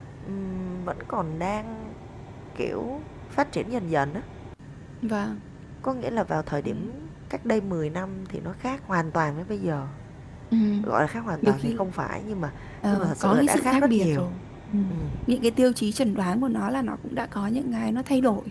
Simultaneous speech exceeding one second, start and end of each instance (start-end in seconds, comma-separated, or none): 12.9-14.3